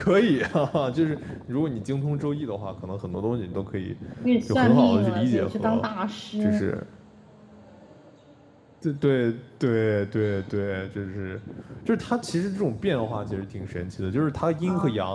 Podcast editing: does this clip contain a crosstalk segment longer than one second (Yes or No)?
Yes